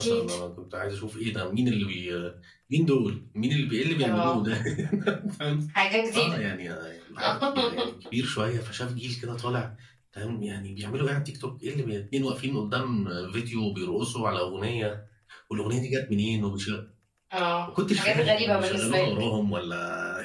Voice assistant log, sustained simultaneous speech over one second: present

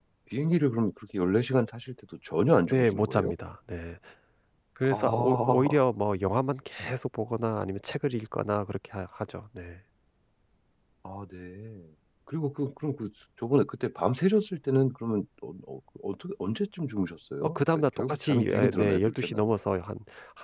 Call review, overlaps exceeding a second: present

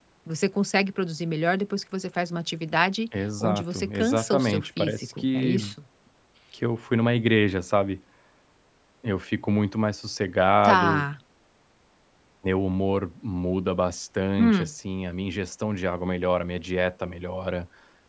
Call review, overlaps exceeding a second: present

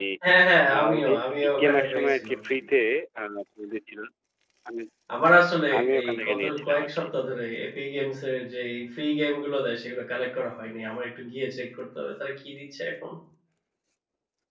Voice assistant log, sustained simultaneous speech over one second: present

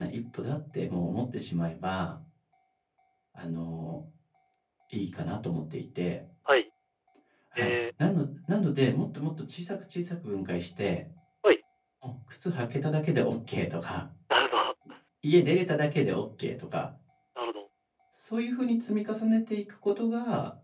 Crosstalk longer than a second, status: none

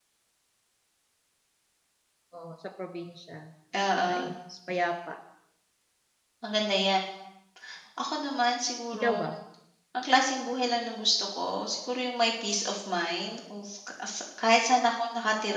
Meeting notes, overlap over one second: none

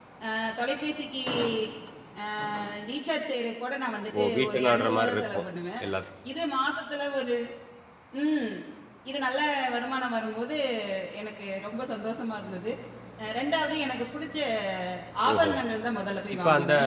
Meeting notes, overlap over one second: present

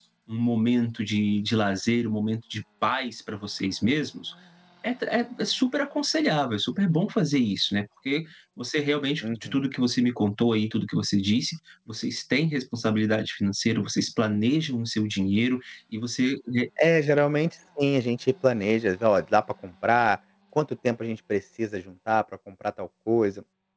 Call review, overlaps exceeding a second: none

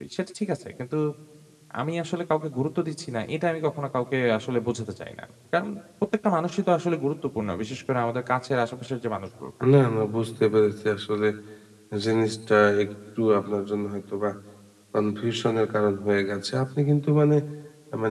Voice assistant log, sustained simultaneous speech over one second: none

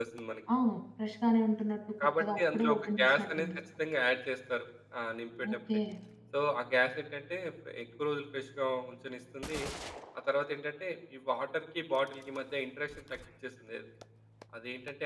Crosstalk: present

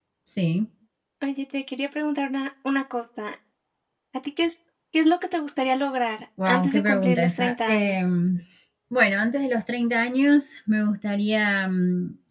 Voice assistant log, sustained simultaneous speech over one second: present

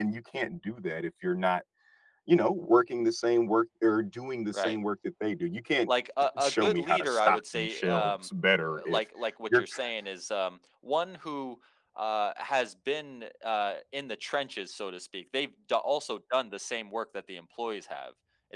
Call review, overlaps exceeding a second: present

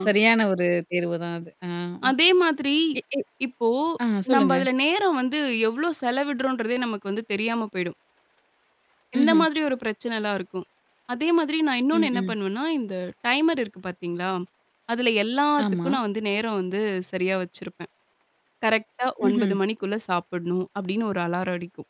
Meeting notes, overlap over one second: none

